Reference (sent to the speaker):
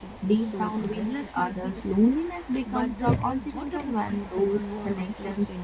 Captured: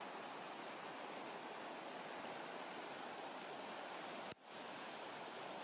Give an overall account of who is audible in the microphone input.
neither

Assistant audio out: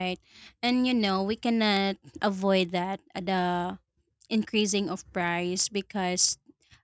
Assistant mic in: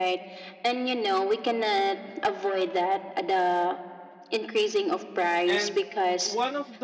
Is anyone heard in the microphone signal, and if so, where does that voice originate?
both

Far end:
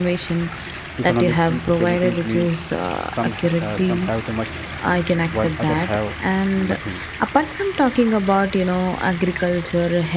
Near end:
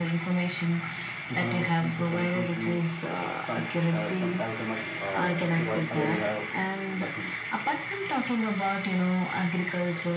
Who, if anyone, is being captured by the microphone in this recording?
both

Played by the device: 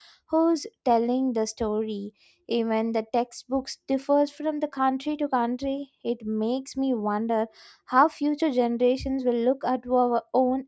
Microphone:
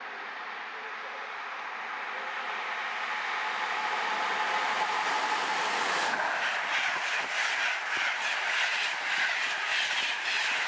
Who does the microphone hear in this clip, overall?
neither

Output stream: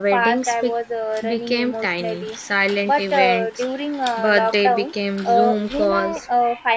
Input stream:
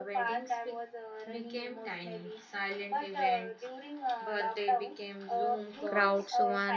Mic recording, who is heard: both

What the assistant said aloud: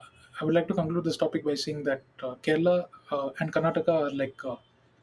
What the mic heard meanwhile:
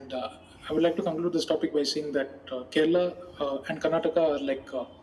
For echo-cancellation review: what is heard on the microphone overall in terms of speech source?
echo only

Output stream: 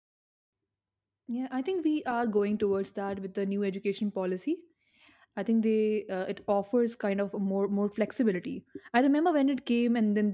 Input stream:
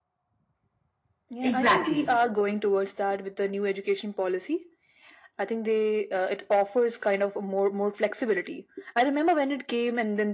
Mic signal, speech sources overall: both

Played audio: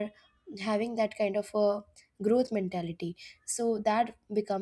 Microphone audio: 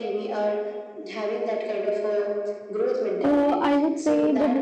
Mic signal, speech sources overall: both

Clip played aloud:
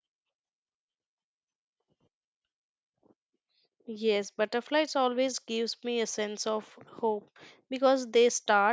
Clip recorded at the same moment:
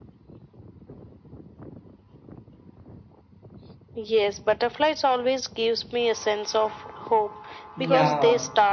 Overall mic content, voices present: both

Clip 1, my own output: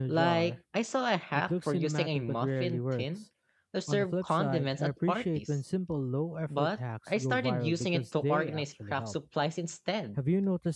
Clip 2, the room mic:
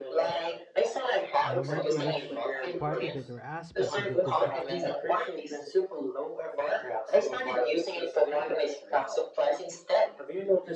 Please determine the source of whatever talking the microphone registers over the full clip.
both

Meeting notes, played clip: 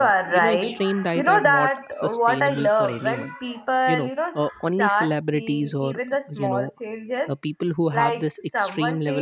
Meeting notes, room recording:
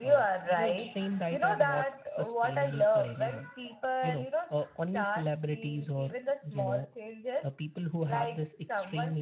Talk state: echo only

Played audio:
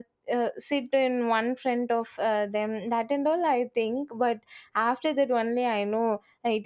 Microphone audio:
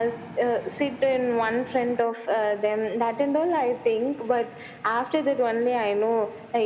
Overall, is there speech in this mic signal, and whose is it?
echo only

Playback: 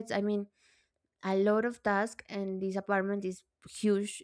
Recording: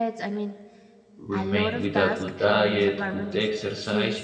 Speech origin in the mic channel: both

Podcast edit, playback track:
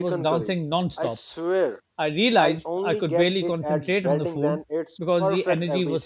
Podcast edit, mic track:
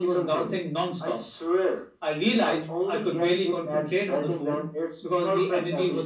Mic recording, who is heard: echo only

